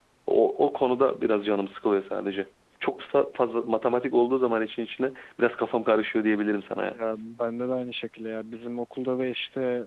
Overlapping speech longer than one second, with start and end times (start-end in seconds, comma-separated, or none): none